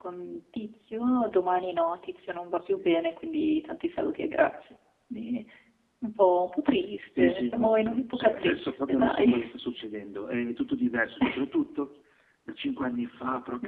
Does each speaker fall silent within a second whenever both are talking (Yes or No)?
No